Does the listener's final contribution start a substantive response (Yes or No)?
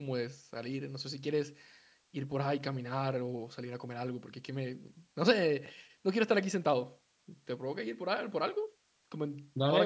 Yes